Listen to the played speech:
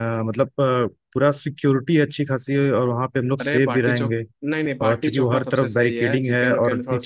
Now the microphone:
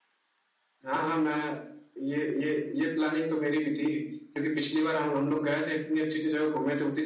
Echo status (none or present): none